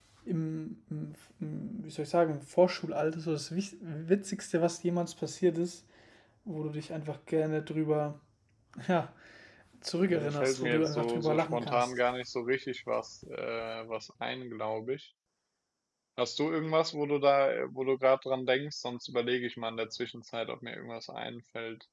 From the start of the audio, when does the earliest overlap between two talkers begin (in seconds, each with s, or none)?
10.1 s